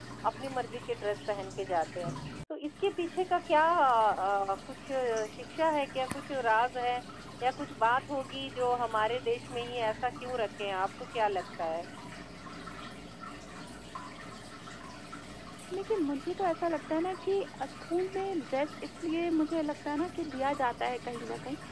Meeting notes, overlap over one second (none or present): none